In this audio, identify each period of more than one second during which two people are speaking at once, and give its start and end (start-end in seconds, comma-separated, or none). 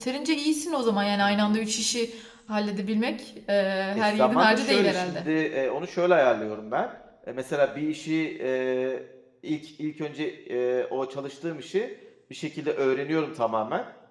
4.0-5.3